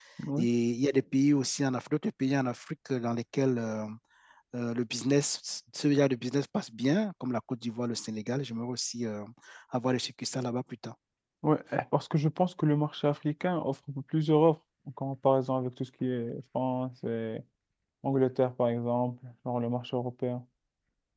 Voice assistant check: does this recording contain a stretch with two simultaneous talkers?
No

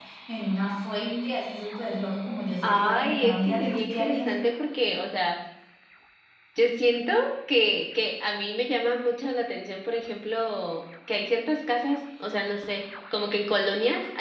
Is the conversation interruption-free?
No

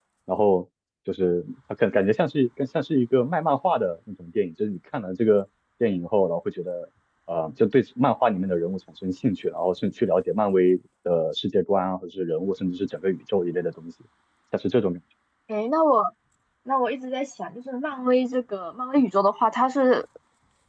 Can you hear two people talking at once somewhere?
No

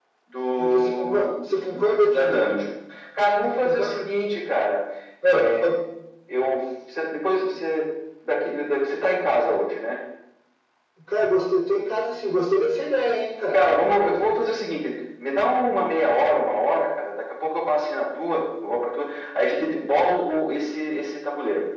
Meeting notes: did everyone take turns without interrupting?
No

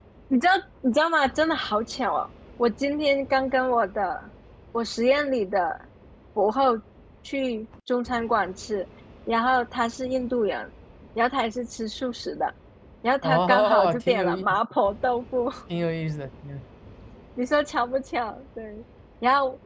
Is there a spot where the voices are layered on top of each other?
Yes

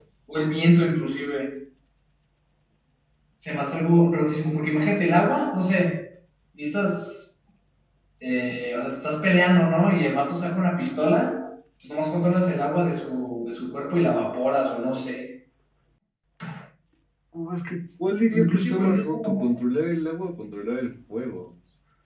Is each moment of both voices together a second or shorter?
No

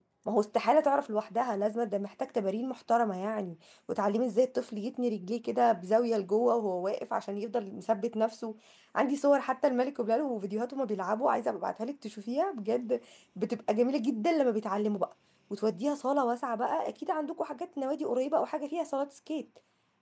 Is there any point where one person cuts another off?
No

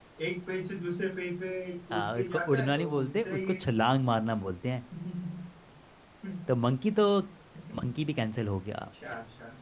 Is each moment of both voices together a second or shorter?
No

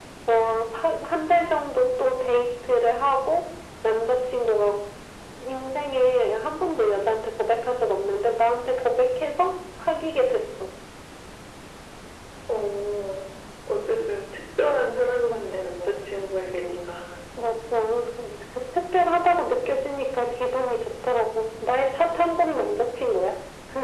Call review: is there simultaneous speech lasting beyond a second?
No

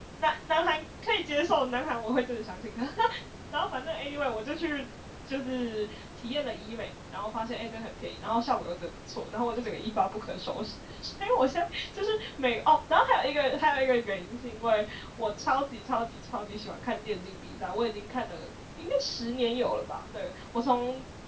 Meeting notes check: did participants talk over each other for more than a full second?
No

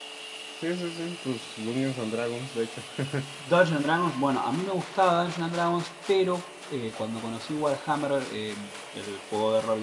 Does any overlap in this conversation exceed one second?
No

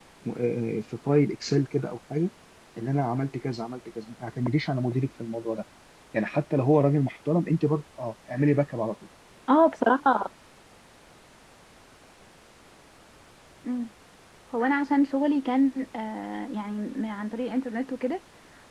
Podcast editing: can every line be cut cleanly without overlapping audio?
Yes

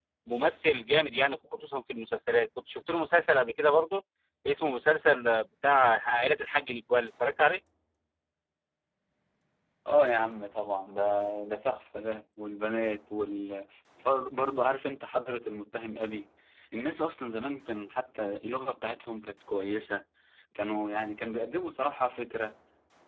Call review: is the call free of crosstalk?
Yes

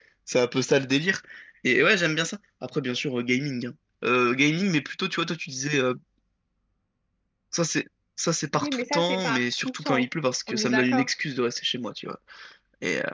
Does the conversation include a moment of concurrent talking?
Yes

